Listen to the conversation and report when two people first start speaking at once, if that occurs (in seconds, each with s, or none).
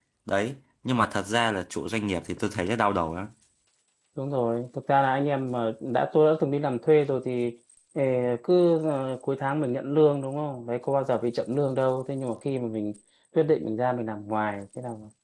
none